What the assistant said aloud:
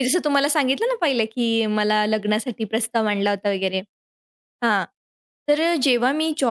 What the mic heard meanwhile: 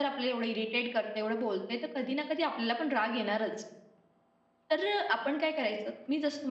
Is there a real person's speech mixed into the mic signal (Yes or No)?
Yes